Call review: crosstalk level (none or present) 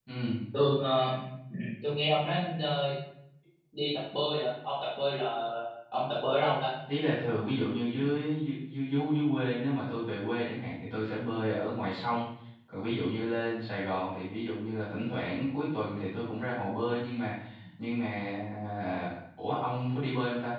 none